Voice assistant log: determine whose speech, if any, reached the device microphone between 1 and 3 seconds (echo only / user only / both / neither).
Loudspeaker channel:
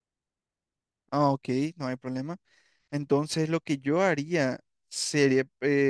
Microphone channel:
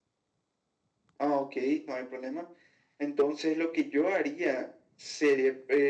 echo only